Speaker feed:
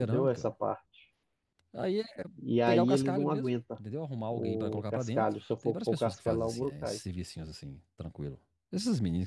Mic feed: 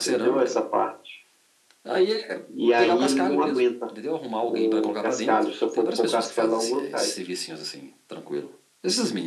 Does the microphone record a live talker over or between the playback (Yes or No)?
No